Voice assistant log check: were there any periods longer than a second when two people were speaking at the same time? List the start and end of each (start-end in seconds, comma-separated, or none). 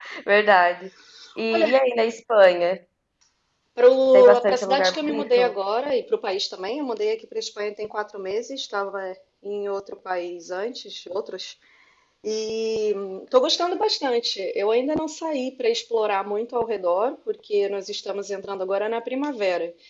4.1-5.5